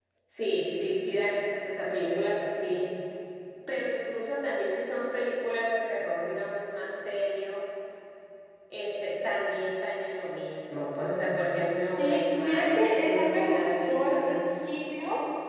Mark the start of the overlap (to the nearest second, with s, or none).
12 s